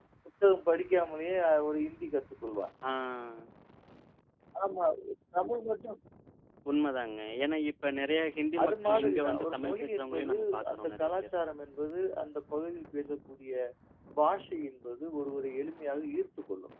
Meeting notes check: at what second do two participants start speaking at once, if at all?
9 s

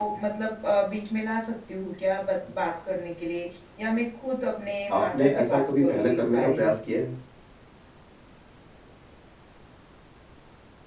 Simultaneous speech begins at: 5 s

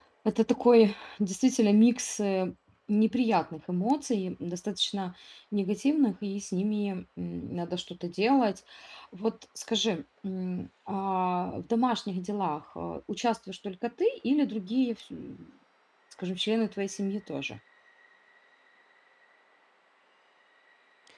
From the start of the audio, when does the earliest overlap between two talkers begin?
none

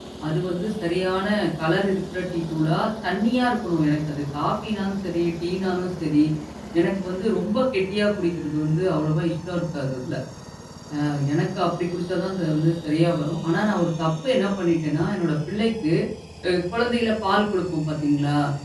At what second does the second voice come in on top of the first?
none

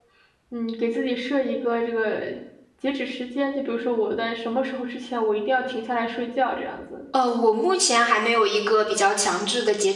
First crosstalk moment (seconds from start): none

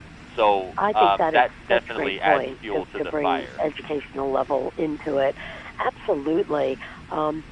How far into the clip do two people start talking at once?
1 s

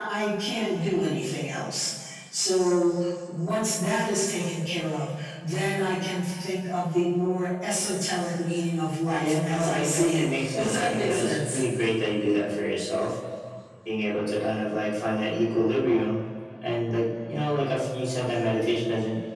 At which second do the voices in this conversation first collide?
9 s

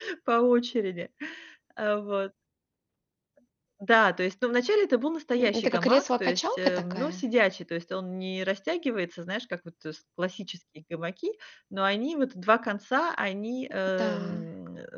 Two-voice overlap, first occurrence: 5 s

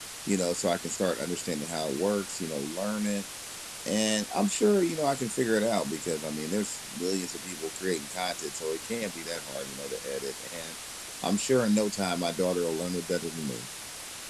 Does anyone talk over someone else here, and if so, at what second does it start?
none

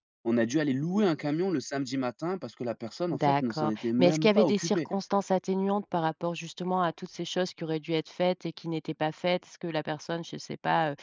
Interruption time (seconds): 3 s

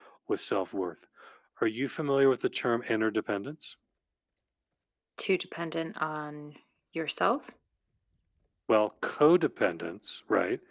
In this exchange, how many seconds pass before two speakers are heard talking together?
none

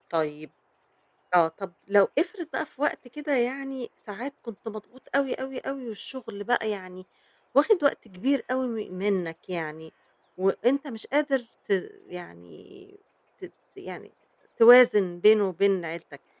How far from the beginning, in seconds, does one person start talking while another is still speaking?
none

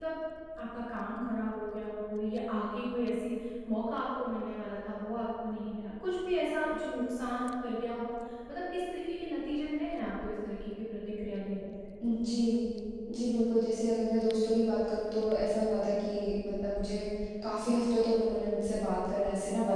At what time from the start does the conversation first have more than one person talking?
none

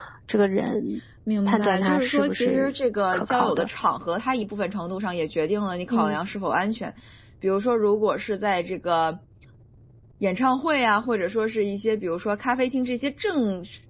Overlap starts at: 1 s

